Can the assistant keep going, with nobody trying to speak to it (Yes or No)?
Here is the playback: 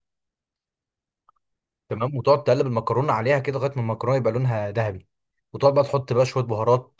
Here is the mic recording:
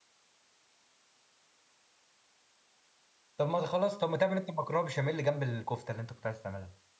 No